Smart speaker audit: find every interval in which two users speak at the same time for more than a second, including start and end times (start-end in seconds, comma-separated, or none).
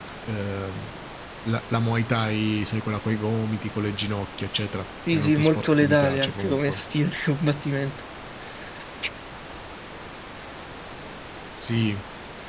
5.1-6.8